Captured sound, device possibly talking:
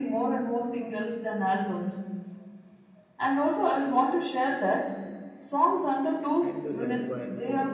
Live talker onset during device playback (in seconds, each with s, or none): 6.4 s